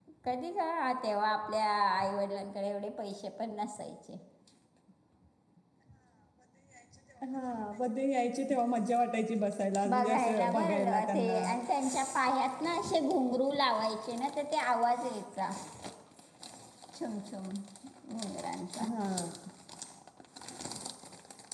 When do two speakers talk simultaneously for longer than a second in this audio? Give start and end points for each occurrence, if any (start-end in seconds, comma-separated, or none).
9.9-11.4